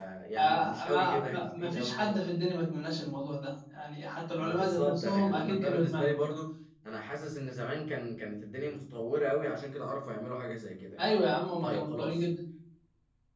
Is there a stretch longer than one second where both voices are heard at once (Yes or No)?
Yes